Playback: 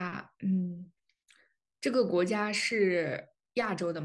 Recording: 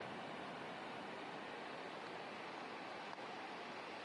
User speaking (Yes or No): No